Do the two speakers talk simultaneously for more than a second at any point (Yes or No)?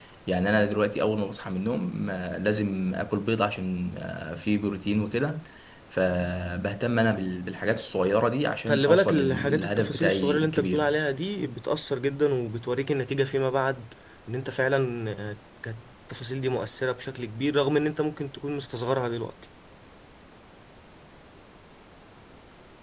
Yes